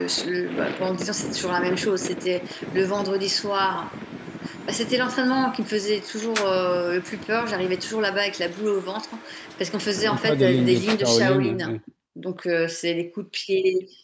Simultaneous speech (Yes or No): Yes